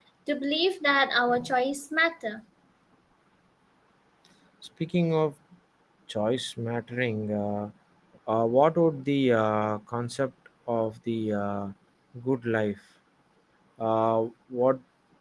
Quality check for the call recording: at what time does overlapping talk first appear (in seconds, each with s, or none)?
none